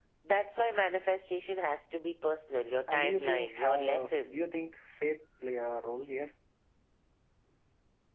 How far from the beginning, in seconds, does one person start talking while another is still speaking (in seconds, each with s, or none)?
2.9 s